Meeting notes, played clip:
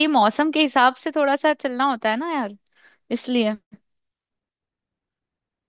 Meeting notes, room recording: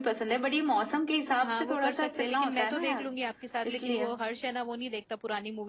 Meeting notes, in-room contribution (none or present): present